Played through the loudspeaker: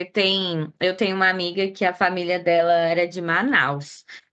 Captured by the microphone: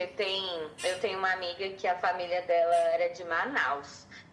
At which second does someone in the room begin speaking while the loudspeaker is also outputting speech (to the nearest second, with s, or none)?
none